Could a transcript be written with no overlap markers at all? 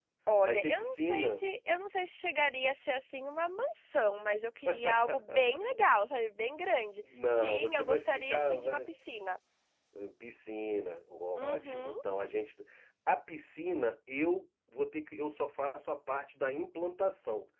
No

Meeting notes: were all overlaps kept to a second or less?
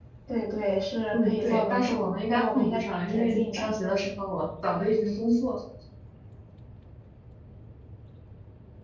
No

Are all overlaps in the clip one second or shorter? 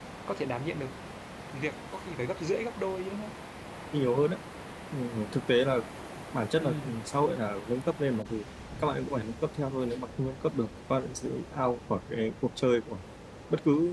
Yes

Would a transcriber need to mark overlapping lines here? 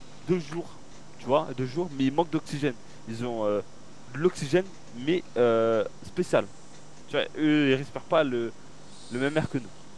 No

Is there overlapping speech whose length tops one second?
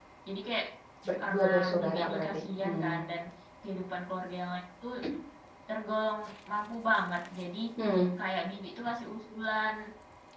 Yes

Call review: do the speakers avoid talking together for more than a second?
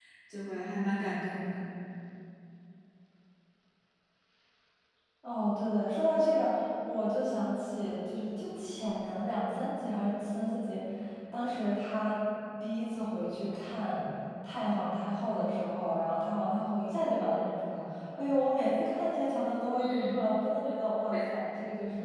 Yes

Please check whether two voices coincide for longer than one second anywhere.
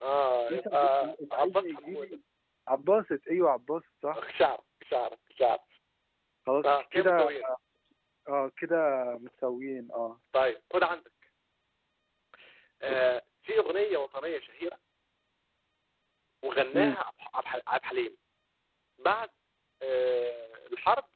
Yes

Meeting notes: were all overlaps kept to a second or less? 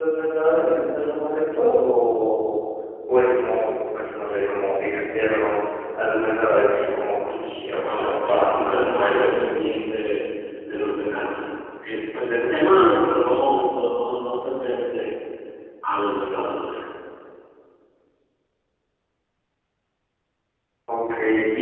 No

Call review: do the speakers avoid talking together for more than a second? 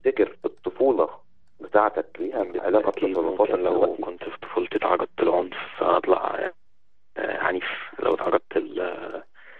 No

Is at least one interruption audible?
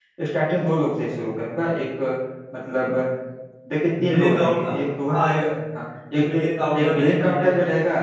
Yes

